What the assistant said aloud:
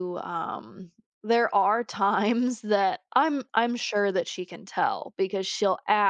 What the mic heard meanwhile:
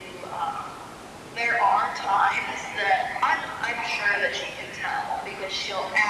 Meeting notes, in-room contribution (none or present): none